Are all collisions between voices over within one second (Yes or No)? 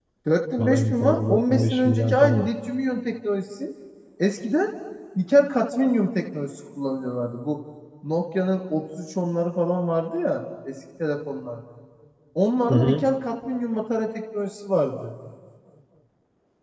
No